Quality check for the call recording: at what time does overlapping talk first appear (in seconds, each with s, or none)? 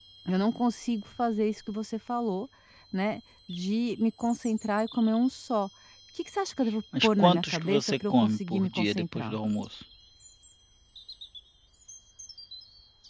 7.0 s